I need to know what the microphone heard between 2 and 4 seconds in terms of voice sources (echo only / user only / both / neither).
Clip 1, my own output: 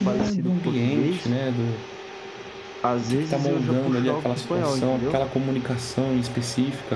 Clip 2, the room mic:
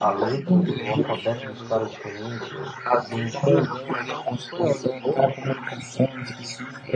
both